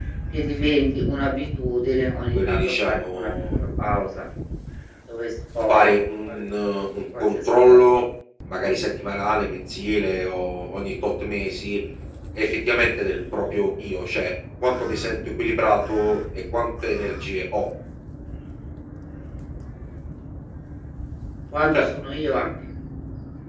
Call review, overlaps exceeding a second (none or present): present